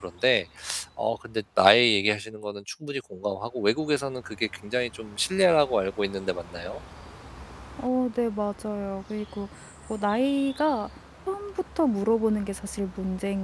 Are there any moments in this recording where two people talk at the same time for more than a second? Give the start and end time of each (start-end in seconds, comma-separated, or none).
none